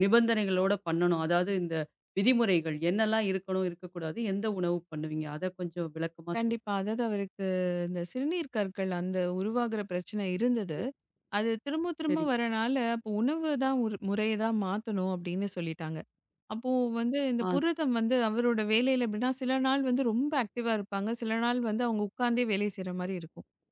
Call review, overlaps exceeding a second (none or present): none